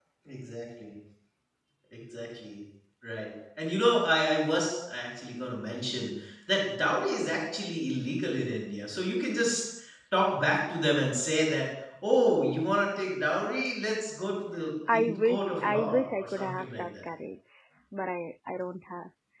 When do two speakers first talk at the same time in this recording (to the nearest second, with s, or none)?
15 s